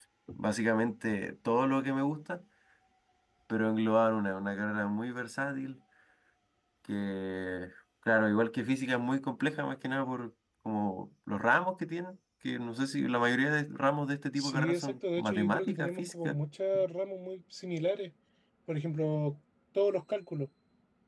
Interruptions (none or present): present